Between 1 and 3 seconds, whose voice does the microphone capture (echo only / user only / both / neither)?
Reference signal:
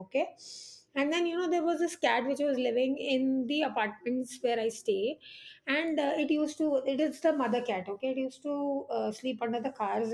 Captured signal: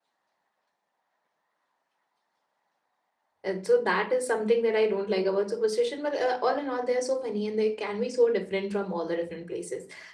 neither